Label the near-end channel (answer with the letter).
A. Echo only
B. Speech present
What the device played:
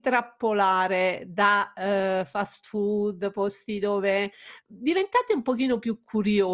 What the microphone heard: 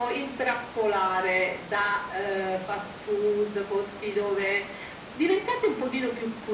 A